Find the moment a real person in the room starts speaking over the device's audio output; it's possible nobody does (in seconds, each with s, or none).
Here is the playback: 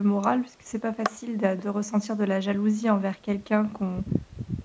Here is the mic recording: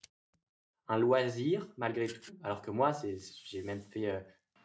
0.9 s